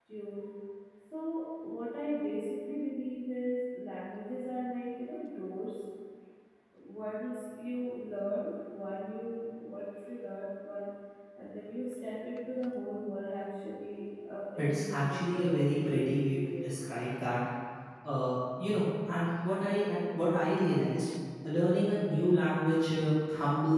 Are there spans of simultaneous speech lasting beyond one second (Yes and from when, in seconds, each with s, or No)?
Yes, from 14.6 s